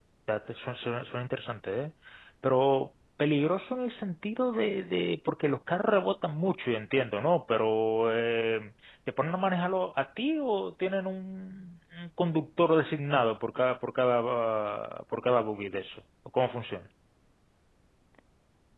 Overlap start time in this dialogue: none

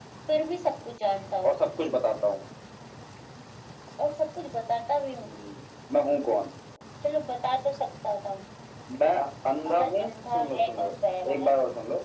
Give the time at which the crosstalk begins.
9.7 s

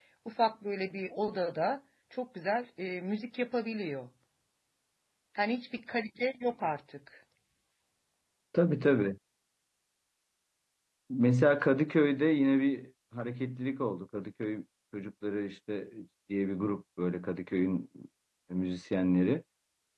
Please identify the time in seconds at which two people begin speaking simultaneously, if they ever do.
none

